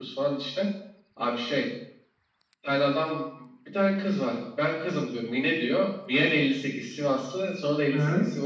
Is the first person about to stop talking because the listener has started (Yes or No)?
No